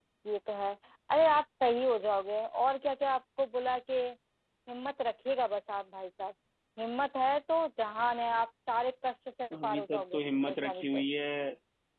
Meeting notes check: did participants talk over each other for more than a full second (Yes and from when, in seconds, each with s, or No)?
Yes, from 9.5 s